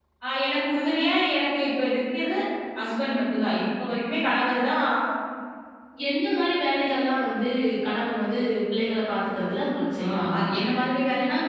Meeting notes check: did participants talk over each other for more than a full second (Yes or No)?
No